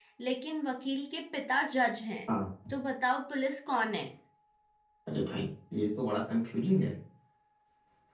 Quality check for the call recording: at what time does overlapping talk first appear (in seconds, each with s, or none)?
none